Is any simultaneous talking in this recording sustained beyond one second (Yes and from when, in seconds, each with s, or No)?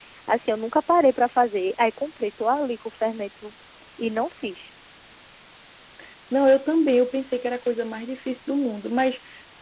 No